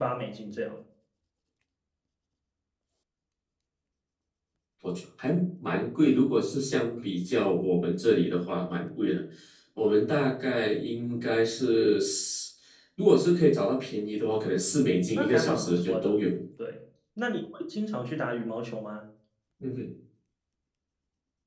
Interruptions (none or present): present